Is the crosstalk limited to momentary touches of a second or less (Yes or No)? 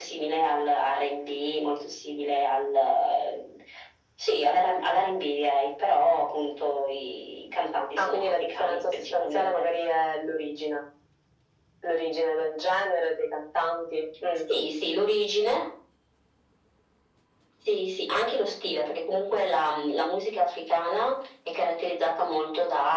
No